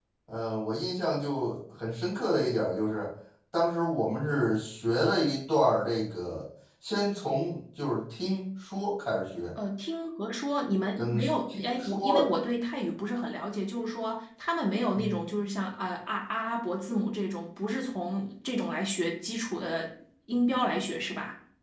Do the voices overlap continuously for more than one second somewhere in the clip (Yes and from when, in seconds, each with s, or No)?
Yes, from 11.0 s